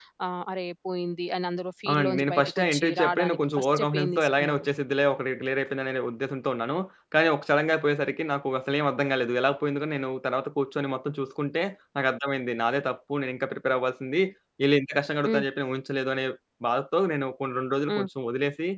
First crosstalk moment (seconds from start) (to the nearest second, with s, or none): 2 s